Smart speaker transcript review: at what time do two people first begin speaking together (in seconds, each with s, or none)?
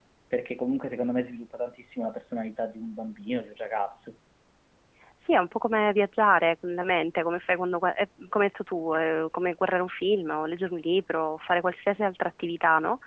none